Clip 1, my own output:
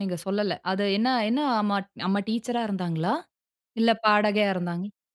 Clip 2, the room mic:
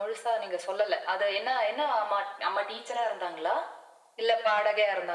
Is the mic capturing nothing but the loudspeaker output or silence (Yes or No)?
Yes